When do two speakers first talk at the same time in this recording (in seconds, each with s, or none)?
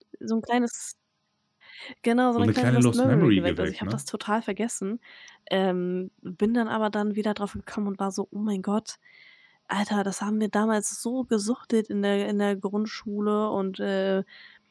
2.4 s